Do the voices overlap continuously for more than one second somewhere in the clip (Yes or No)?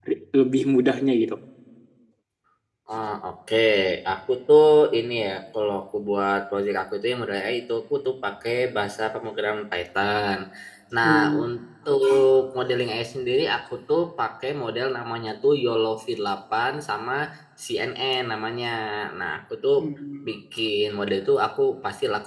No